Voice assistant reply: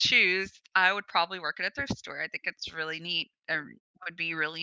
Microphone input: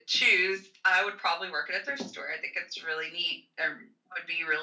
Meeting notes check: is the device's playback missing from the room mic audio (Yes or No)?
No